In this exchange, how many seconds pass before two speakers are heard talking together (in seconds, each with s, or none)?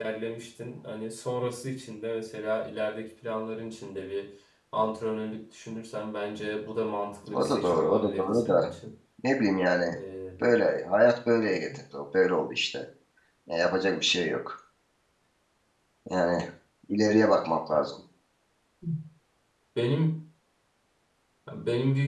7.3 s